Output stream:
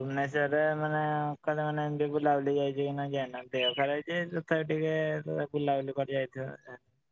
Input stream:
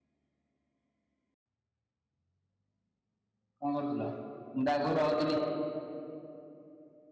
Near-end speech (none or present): present